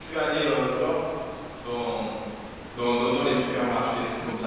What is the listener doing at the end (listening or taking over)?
listening